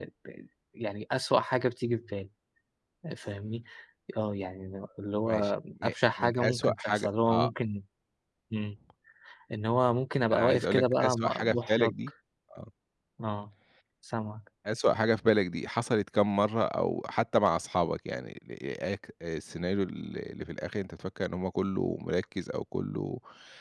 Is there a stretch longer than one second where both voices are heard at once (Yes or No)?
Yes